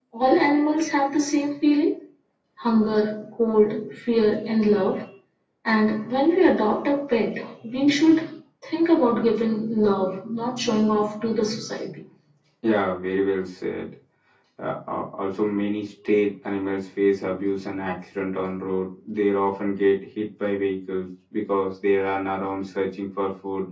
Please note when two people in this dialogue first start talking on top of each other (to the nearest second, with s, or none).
none